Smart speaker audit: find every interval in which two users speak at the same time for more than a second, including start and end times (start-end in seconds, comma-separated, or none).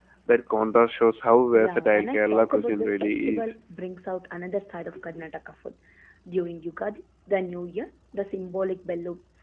1.5-3.5